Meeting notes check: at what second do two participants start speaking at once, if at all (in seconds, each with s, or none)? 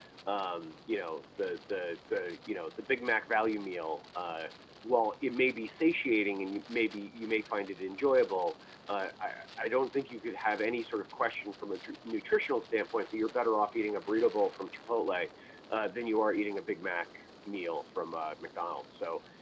none